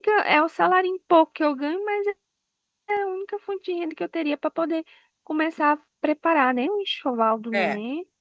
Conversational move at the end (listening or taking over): taking over